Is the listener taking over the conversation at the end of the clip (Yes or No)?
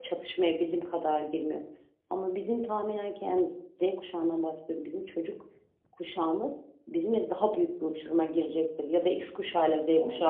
Yes